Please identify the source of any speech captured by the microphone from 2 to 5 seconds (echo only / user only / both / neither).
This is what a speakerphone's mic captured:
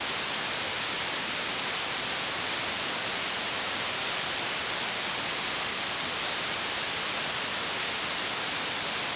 neither